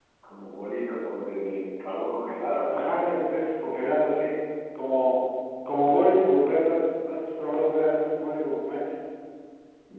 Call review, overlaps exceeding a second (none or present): none